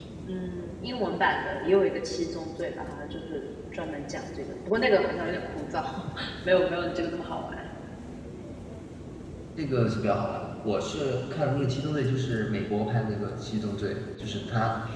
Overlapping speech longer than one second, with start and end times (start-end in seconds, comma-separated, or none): none